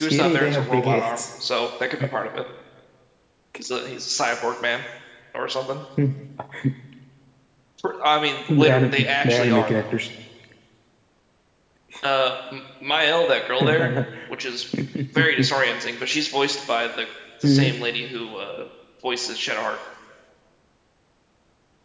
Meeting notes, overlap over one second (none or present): present